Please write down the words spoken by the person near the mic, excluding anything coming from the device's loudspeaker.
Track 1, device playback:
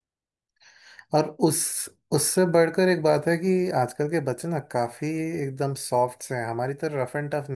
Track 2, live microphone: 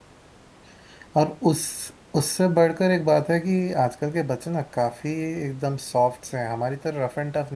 none

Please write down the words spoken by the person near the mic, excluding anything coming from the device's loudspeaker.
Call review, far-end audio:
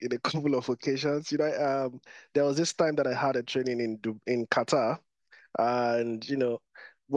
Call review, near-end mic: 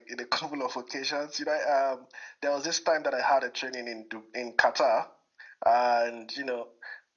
none

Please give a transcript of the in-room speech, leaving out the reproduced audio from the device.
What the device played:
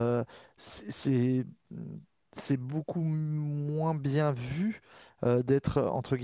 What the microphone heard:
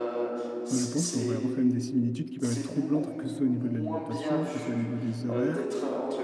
moi, je pense qu'on va avoir quand même des similitudes qui peuvent être troublantes, que ce soit au niveau de l'alimentation, que ce soit au niveau des horaires,

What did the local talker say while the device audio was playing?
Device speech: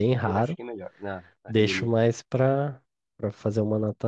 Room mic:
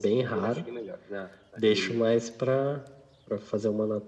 none

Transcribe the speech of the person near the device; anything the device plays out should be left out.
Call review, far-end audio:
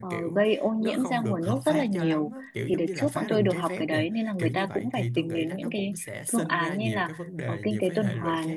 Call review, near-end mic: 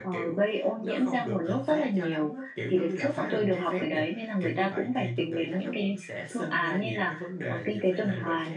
none

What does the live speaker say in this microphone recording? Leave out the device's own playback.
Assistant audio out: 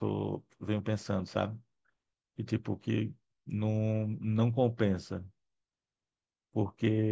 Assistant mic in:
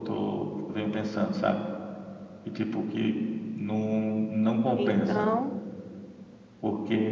Então.

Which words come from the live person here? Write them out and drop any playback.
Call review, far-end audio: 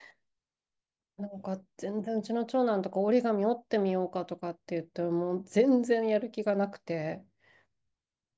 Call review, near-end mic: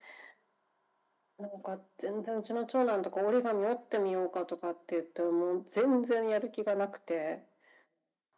none

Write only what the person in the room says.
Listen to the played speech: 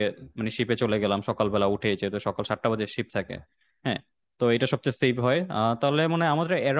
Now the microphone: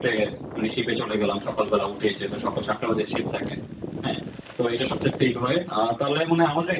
none

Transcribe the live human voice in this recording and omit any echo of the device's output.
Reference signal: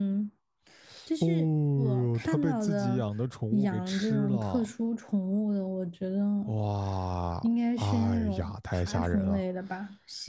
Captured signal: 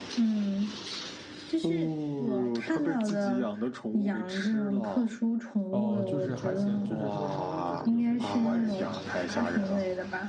哦，就是还行，就是说稍微就是有那种关起来的那种哈，

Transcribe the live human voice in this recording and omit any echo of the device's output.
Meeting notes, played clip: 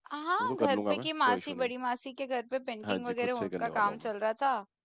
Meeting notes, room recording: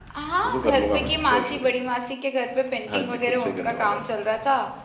none

